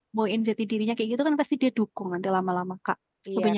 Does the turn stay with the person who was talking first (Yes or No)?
No